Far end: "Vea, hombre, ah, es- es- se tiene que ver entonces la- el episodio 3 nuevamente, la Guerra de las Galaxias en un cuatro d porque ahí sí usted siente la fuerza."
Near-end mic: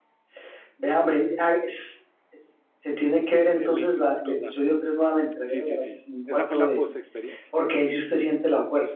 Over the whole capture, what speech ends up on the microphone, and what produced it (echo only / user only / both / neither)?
both